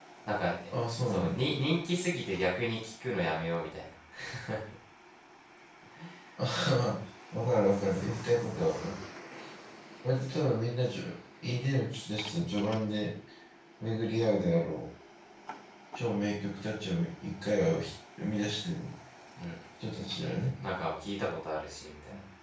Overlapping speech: Yes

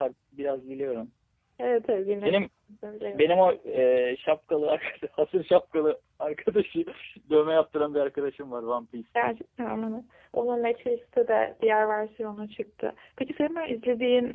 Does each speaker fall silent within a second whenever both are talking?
Yes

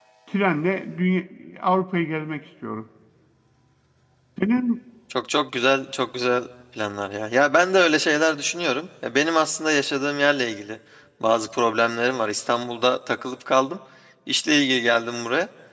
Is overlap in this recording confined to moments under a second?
Yes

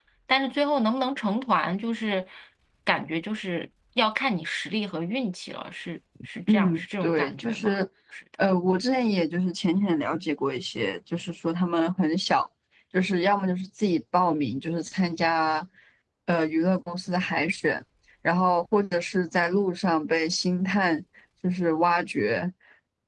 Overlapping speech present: Yes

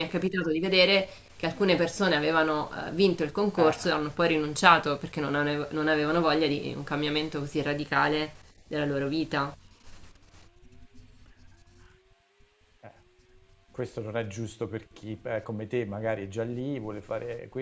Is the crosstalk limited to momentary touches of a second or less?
Yes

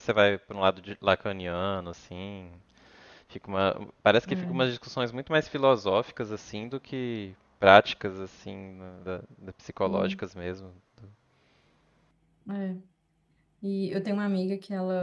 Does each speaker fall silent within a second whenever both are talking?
Yes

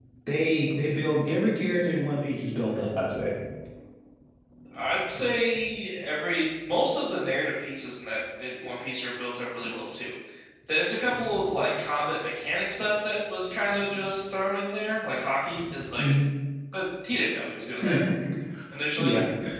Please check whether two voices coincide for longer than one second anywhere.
No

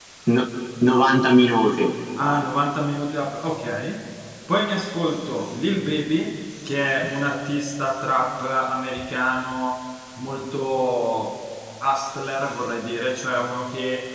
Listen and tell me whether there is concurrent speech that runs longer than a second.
No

